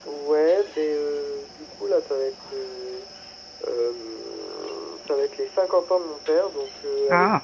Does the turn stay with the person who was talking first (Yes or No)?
Yes